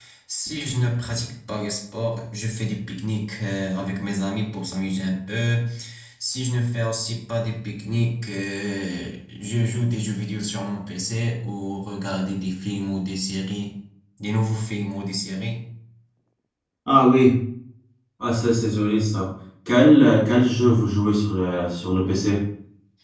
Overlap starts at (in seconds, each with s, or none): none